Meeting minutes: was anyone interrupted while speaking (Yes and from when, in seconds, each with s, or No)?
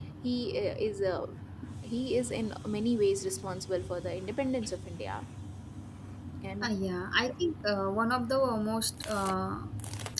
No